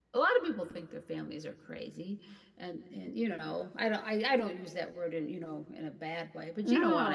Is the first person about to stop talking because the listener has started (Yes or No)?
Yes